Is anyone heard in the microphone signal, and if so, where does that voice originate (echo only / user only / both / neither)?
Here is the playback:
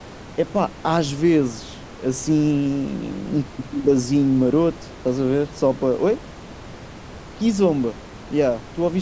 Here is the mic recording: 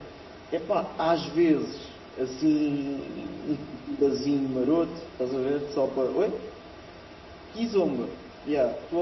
echo only